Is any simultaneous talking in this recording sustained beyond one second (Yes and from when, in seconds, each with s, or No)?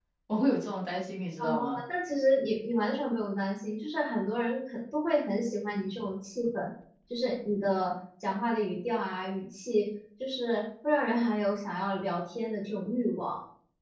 No